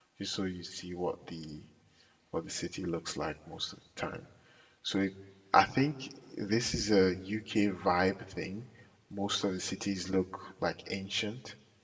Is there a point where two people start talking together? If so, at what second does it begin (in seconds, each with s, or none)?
none